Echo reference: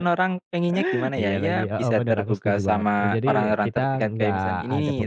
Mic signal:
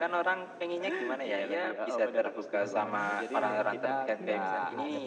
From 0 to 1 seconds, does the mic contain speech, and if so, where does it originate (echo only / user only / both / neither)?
echo only